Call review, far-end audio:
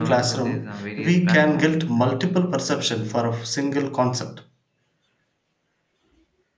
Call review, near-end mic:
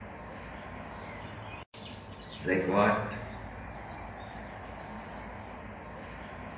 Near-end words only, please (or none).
Like what?